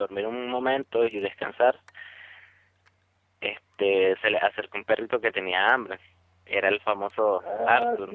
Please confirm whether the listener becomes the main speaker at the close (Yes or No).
Yes